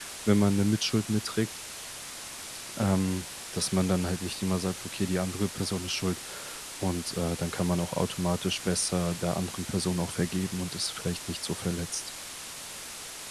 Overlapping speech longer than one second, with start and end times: none

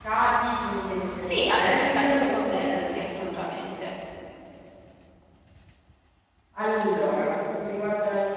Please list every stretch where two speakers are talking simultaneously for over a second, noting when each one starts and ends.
1.3-3.7

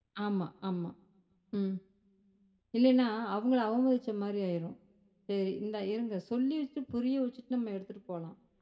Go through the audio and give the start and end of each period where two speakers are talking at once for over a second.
none

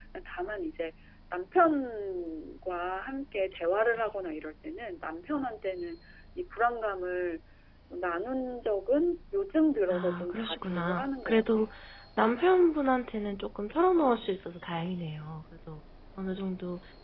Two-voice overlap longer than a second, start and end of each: 9.9-11.4

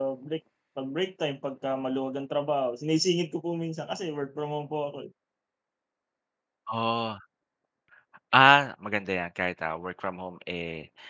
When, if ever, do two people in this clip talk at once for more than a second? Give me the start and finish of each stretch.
none

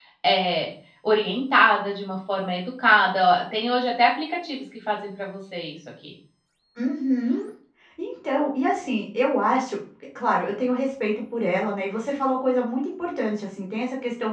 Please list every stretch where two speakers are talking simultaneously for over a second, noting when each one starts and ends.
none

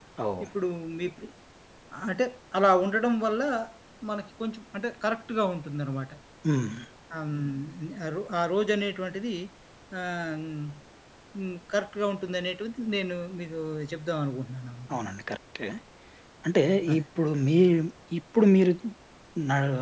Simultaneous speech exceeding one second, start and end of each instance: none

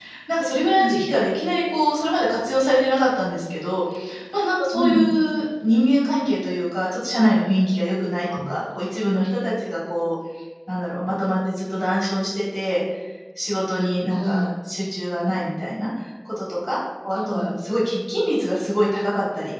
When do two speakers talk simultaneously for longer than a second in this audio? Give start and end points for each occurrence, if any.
none

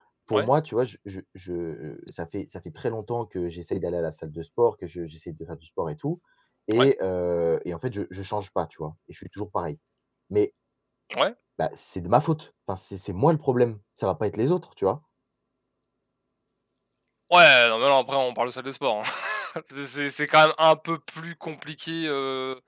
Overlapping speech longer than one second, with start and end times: none

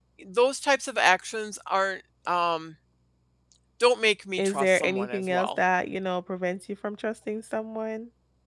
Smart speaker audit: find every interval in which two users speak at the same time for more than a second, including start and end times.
4.4-5.6

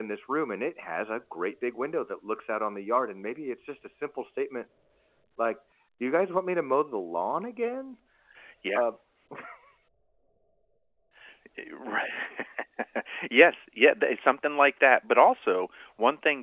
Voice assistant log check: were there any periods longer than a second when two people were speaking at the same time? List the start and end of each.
none

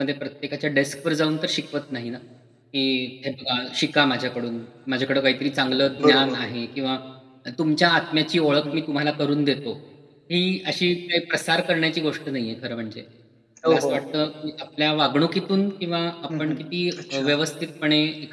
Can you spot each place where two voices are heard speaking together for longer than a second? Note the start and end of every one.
none

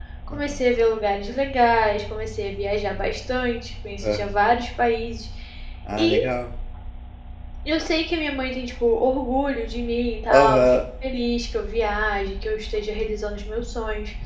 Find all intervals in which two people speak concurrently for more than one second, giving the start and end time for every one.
none

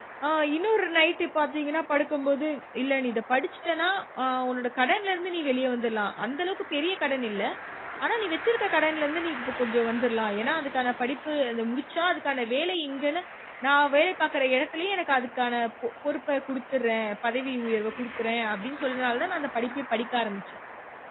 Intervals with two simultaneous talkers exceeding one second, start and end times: none

